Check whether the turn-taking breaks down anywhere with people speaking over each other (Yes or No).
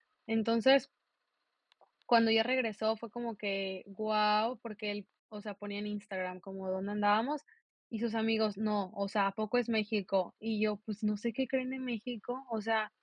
No